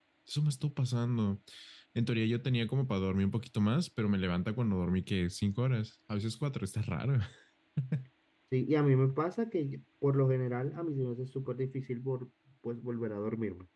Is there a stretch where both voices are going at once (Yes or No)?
No